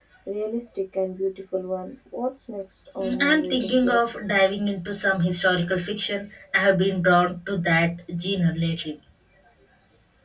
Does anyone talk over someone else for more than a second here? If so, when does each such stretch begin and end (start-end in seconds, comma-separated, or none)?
3.0-4.3